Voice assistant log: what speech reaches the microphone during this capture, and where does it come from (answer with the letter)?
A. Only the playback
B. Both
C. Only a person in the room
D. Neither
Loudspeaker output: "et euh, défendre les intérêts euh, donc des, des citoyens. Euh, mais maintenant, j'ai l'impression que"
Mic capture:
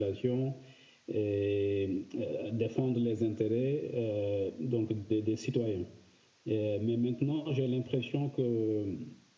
A